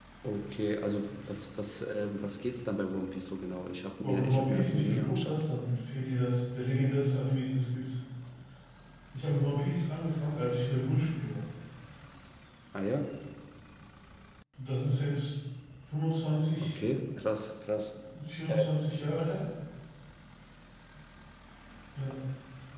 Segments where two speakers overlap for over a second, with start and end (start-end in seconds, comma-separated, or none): 4.0-5.4